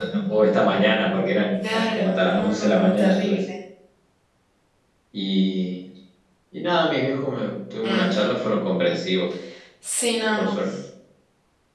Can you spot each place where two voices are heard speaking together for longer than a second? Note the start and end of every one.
1.7-3.3

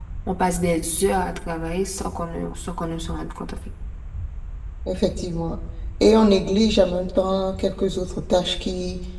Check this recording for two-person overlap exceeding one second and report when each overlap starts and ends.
none

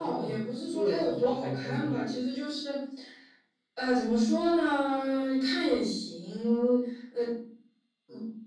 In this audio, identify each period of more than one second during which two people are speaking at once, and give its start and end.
0.7-2.2

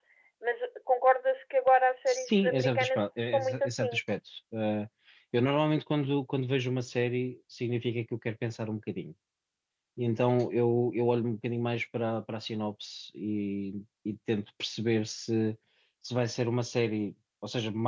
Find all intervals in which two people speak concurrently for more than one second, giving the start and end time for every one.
2.1-4.0

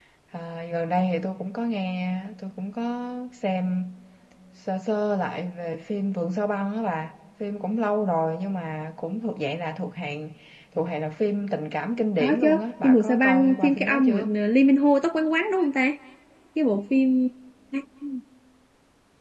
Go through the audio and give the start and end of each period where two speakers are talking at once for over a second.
12.8-14.3

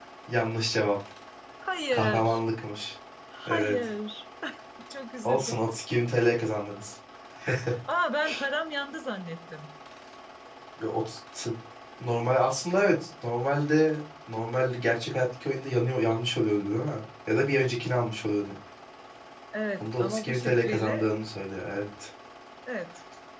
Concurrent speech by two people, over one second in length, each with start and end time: 19.8-21.1

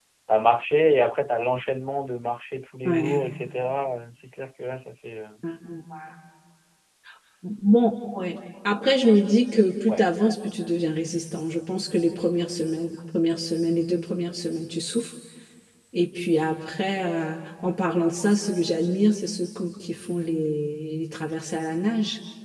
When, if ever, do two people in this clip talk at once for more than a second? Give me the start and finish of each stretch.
none

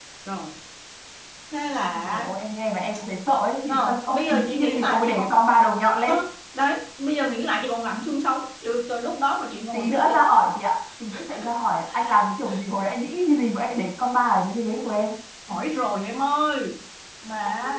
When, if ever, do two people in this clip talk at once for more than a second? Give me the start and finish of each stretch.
3.7-5.3

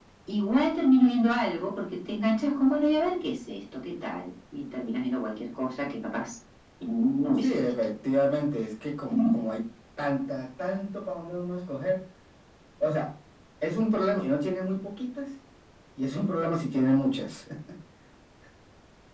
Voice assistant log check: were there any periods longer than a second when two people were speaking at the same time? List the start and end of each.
none

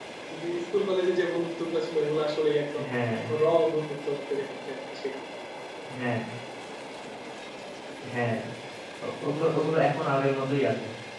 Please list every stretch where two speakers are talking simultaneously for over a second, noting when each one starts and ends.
none

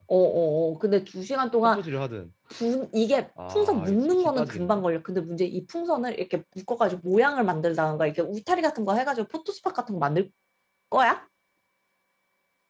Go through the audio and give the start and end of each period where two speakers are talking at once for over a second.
3.5-4.8

